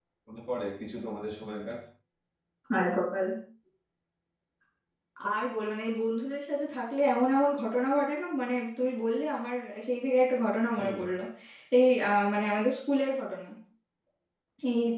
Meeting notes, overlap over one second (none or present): none